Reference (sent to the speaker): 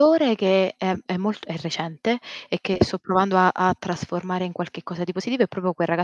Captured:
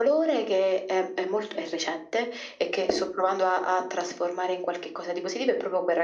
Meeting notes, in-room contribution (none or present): none